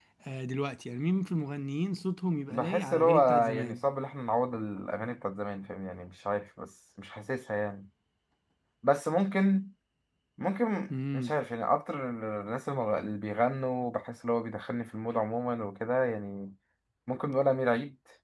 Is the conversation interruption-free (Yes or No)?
No